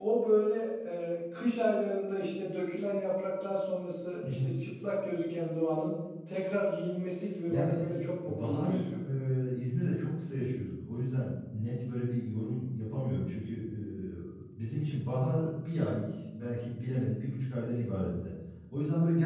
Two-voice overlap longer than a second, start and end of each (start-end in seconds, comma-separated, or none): 7.5-8.8